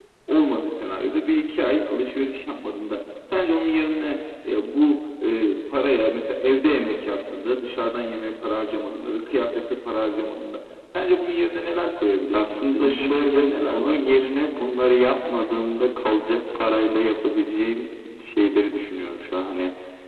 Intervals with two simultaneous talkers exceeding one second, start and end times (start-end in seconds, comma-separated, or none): 12.3-14.0